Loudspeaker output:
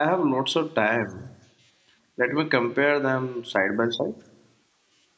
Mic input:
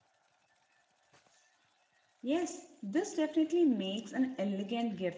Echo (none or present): none